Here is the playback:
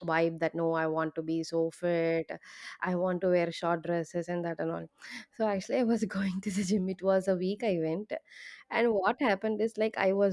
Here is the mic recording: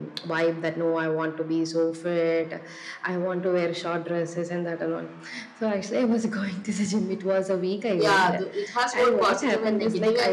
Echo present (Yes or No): Yes